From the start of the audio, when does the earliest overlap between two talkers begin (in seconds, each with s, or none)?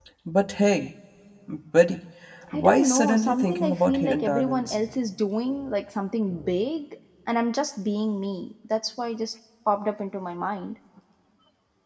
2.5 s